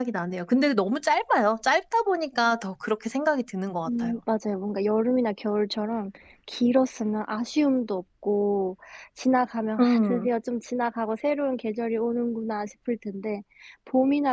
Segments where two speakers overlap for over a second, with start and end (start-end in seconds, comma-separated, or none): none